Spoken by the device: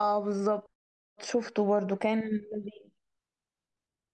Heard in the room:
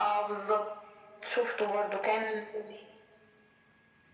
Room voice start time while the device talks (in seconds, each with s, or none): none